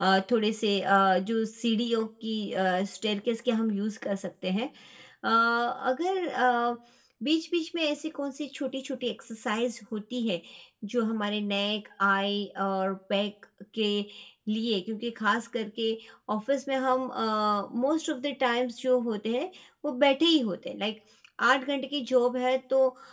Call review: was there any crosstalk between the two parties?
No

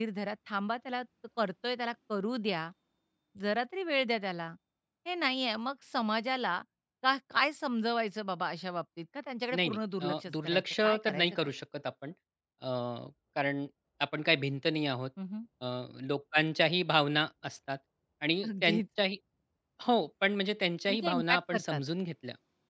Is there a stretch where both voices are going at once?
Yes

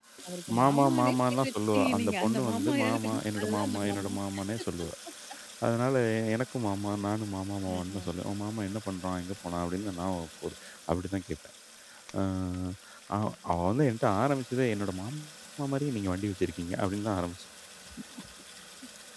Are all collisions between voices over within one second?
No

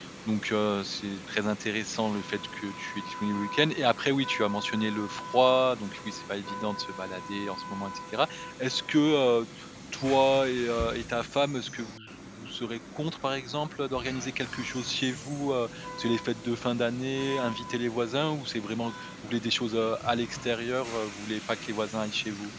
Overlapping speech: No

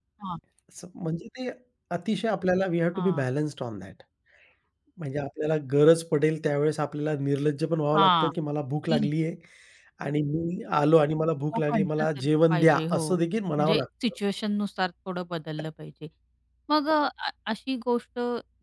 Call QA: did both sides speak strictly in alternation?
No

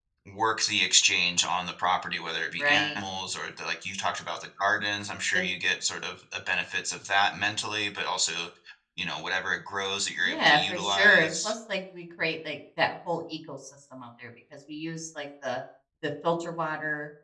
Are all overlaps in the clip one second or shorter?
No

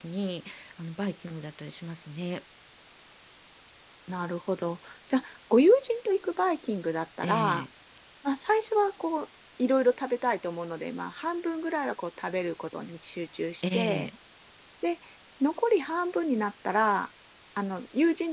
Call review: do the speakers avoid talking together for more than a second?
Yes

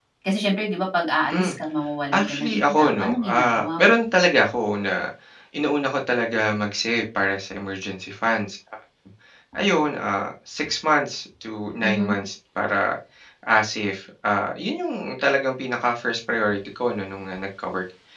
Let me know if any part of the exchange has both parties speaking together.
Yes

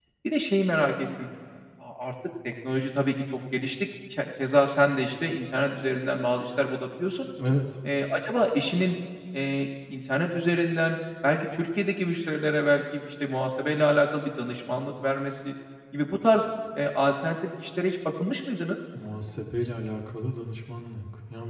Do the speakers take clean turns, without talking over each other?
Yes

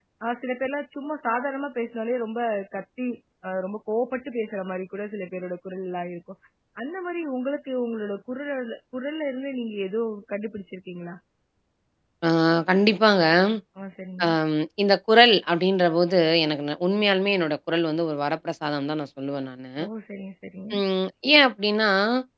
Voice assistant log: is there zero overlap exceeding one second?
Yes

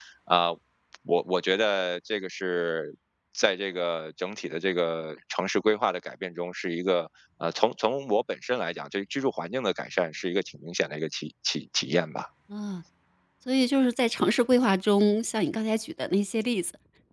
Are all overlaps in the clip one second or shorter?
Yes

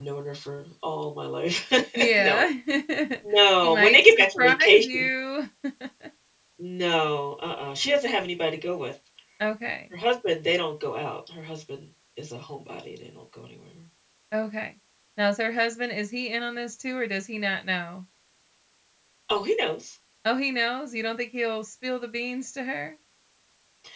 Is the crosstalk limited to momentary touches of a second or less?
No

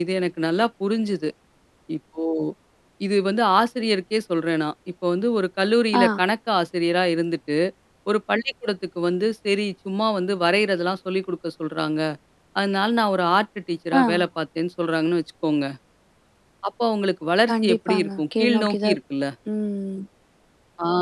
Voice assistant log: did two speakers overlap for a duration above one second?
Yes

